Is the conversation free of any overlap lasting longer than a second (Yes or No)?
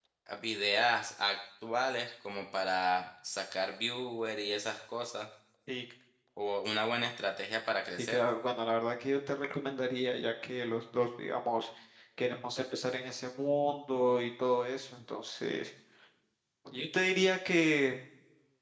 Yes